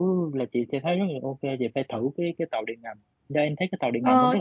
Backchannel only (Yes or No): No